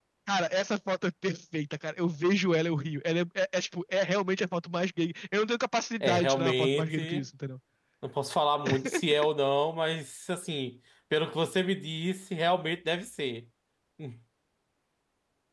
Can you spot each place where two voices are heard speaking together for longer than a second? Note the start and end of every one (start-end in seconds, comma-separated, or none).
6.0-7.2